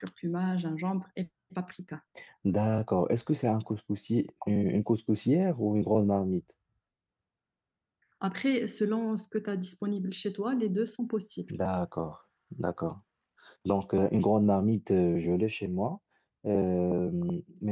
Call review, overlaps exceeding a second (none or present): none